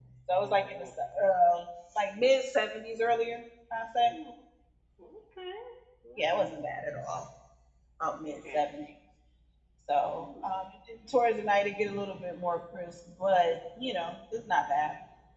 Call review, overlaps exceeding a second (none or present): none